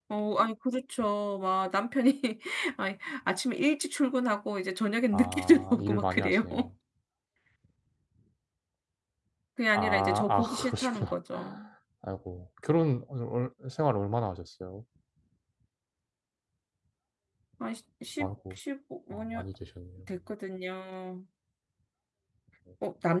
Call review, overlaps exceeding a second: present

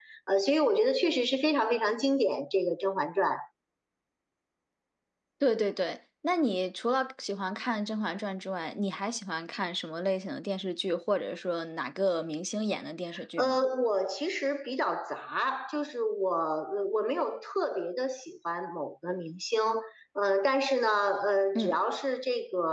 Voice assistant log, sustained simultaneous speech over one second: none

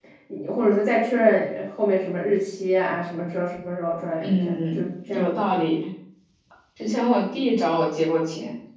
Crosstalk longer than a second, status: present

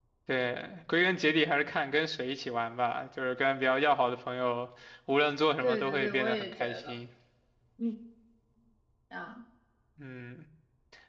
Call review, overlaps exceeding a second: present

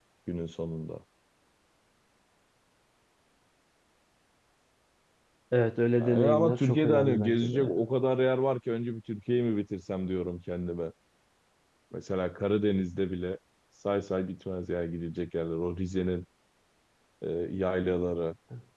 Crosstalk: present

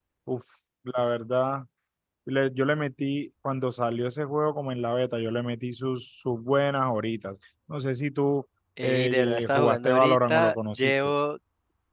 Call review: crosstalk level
present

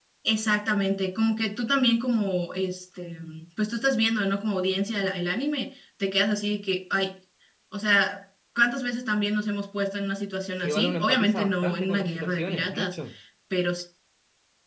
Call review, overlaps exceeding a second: present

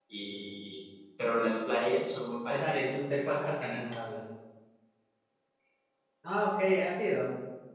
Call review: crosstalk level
present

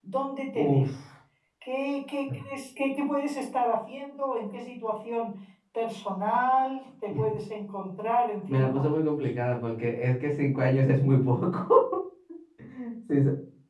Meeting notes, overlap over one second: none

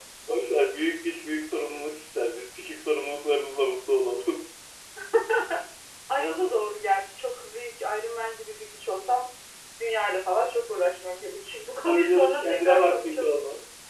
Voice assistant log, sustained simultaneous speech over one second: present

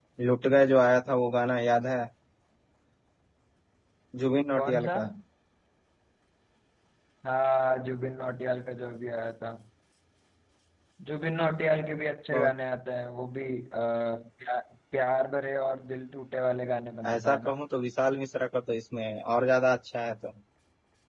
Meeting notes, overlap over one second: none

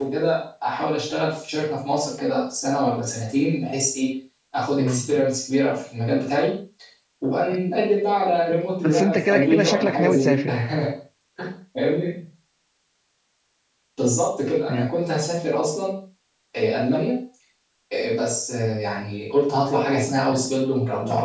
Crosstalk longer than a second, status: present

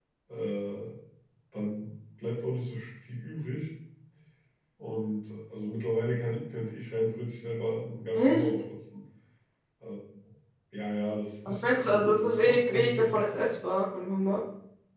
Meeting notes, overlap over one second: present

